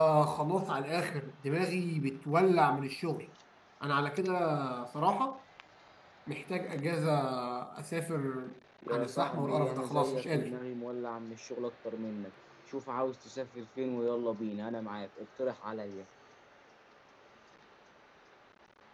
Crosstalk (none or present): present